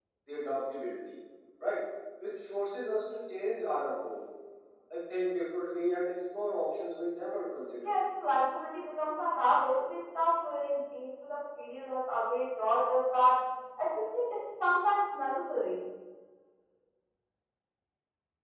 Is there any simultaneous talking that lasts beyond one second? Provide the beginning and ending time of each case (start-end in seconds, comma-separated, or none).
none